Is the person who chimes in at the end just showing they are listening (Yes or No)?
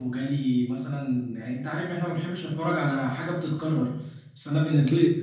Yes